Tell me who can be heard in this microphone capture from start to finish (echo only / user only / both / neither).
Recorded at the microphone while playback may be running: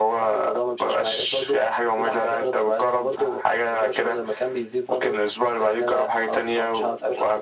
echo only